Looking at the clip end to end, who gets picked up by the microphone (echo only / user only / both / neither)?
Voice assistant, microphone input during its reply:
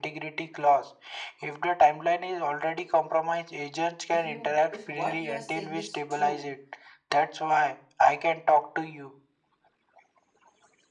both